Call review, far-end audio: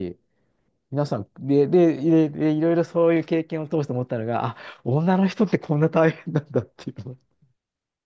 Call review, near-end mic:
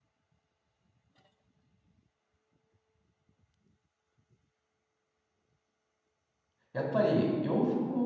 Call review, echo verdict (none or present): none